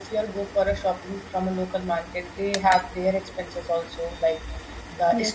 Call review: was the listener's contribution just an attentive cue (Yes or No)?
Yes